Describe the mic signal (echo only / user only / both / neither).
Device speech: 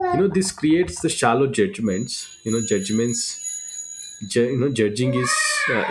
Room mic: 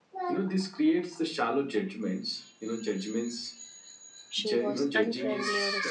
both